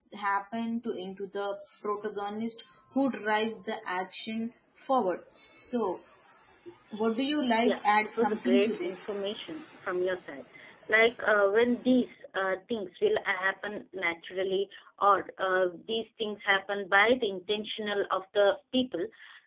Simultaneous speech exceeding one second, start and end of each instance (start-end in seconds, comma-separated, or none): 7.6-9.0